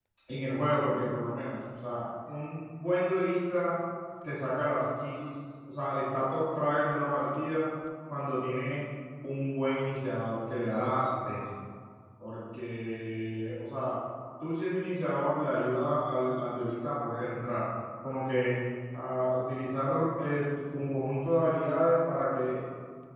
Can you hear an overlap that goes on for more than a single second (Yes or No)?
No